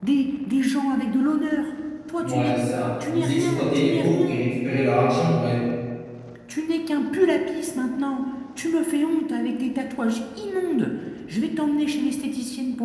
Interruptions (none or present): present